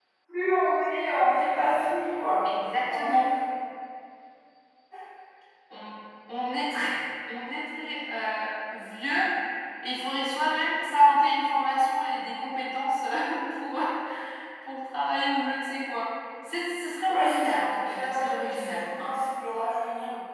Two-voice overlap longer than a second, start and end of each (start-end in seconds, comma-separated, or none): 17.0-18.9